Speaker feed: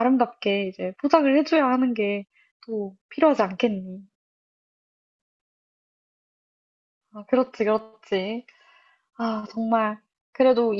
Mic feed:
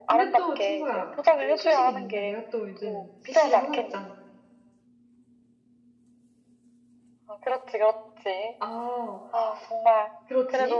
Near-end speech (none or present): present